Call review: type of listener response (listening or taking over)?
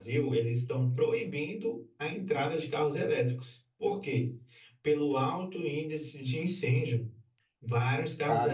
listening